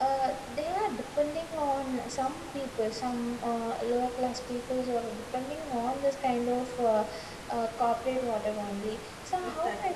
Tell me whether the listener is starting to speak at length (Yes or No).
Yes